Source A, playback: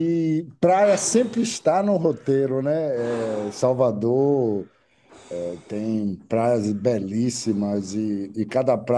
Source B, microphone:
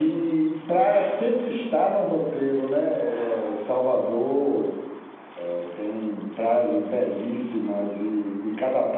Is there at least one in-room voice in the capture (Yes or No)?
No